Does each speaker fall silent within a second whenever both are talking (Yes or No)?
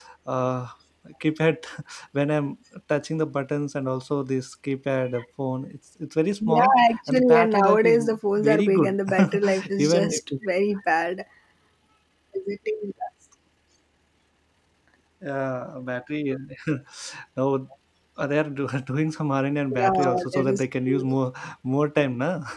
No